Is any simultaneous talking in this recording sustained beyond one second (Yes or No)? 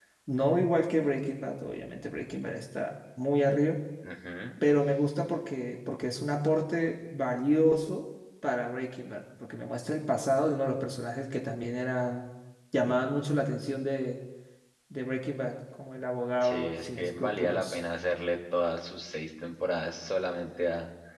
Yes